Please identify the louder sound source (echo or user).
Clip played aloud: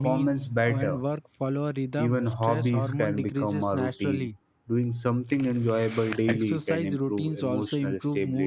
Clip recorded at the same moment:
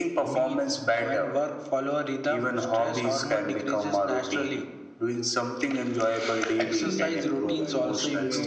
echo